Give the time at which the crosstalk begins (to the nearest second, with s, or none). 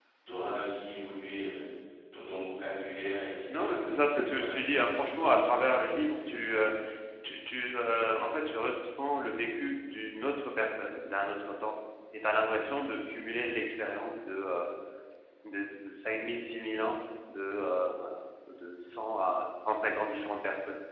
4 s